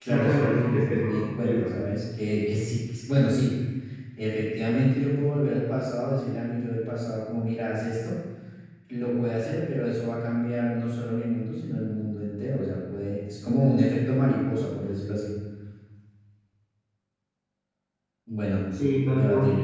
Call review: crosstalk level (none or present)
present